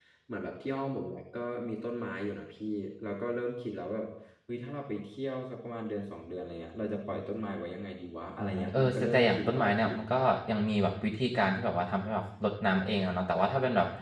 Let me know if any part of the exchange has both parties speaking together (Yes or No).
Yes